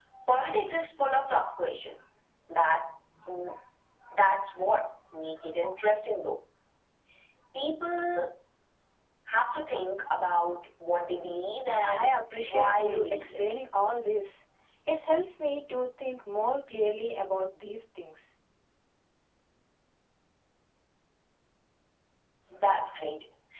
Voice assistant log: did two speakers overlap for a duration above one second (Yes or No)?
Yes